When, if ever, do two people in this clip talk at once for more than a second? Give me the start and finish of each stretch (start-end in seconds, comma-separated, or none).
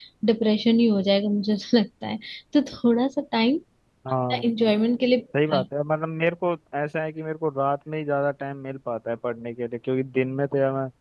none